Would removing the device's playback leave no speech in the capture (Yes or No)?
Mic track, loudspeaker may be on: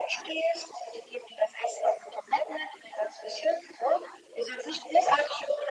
Yes